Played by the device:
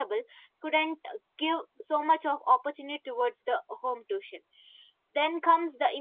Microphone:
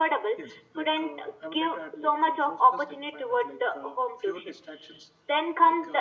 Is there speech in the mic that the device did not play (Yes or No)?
Yes